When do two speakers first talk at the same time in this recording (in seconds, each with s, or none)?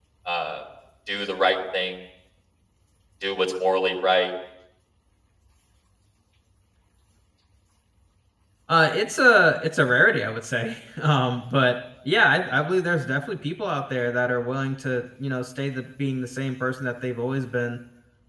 none